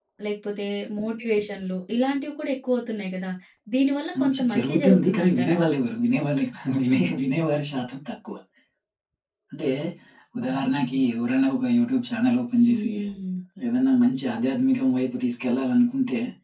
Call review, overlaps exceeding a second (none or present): present